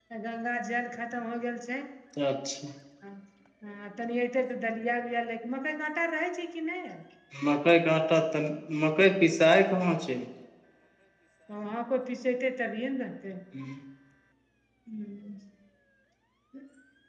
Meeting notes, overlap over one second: none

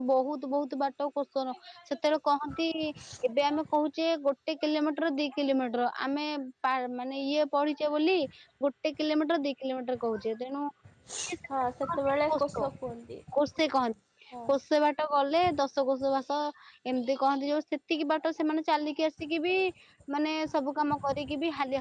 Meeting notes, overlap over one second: none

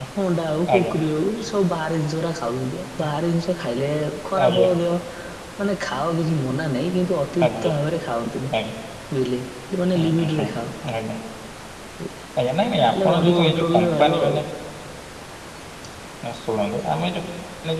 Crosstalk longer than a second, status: present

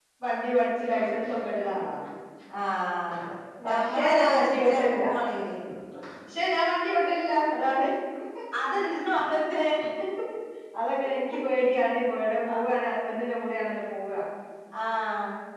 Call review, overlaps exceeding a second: present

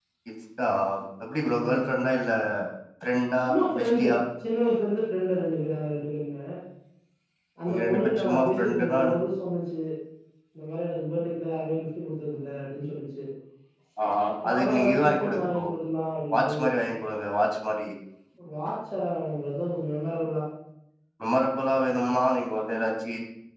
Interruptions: present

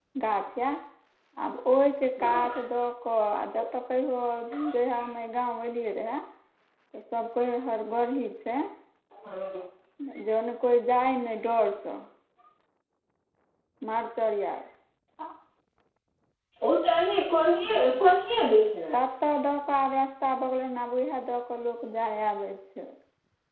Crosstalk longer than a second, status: none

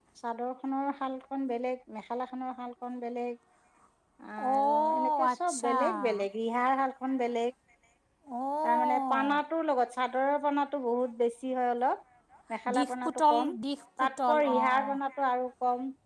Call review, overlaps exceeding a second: present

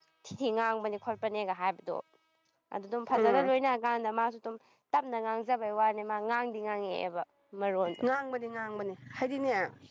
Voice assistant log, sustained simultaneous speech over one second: none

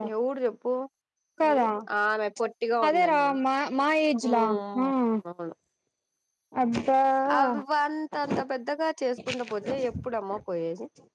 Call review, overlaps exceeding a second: none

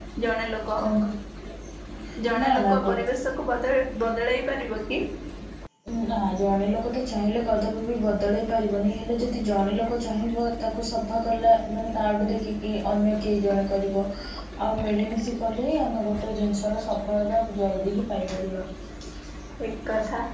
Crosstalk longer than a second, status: none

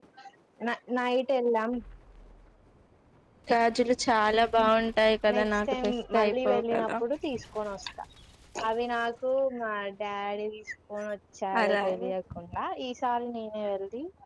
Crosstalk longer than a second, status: present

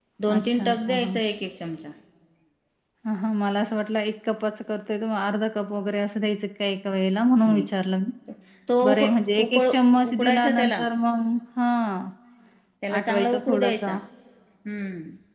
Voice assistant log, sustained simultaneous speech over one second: present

